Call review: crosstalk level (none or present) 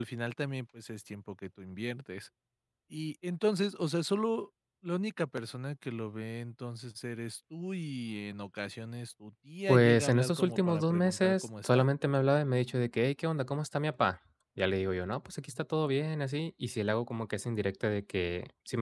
present